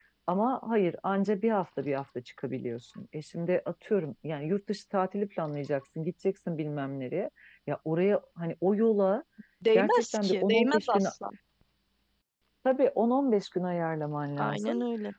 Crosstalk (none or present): present